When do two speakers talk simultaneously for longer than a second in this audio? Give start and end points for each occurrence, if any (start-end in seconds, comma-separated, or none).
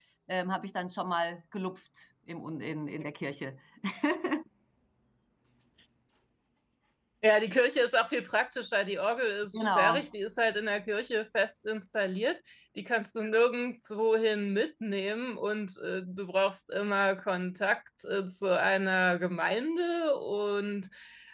none